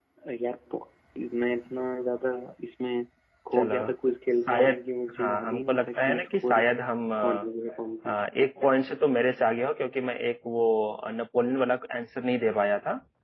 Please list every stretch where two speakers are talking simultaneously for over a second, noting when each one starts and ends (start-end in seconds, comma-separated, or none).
5.2-6.6